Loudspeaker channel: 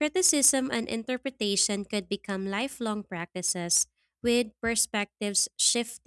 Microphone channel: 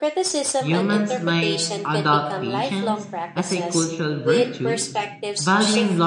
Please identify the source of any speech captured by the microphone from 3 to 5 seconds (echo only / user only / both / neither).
both